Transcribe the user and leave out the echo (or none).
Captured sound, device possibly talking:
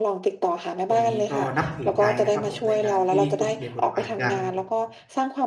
ตรงนี้ก็นับถือใจนะครับผม ในการที่คุณเปลี่ยนบทบาทจาก